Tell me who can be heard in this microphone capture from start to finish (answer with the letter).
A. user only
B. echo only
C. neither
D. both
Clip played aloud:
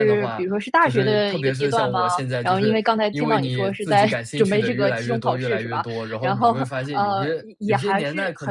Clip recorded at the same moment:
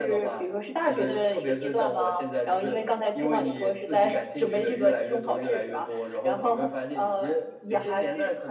B